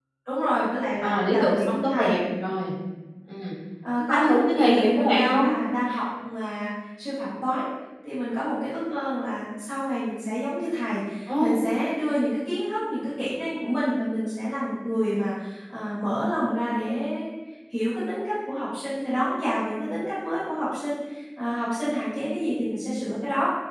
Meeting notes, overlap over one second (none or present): present